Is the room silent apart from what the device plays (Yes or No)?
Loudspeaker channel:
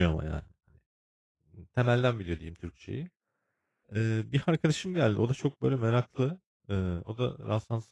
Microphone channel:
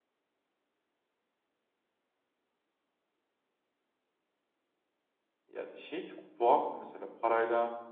No